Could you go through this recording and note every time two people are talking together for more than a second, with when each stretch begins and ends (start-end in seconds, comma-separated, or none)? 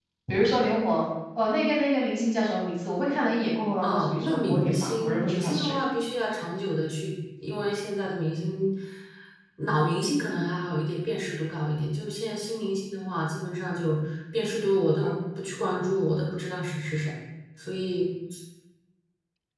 3.8-5.8